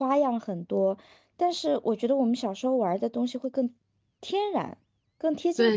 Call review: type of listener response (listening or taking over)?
taking over